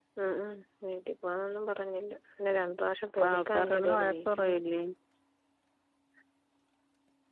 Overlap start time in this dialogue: 3.2 s

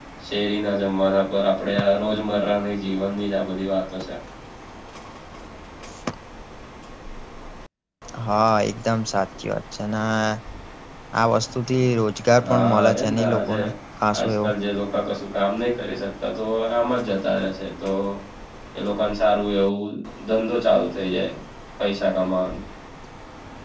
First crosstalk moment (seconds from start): 12.3 s

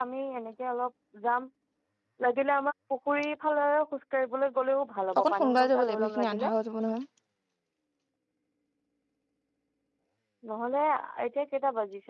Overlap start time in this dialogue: 5.1 s

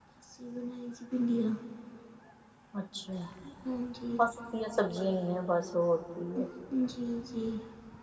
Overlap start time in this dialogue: none

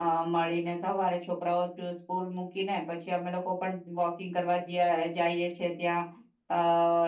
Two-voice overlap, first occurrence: none

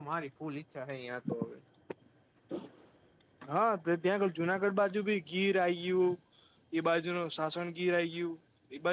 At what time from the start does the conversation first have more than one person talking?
none

